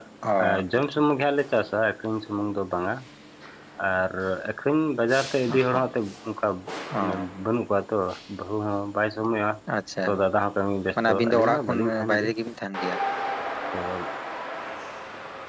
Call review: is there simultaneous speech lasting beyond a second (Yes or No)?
Yes